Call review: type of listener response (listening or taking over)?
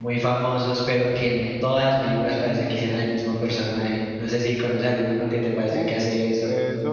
taking over